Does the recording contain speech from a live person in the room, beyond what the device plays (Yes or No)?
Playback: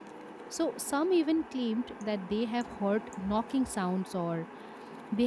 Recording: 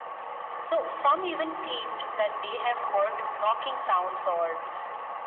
No